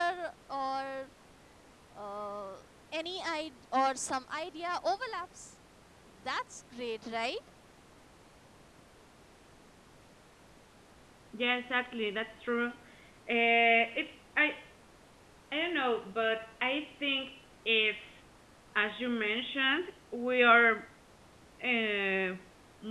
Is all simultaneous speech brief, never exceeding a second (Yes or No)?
Yes